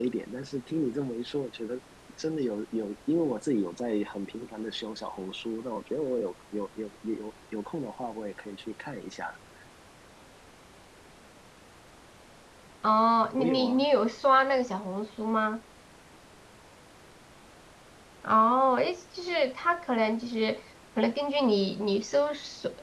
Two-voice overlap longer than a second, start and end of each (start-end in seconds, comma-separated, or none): none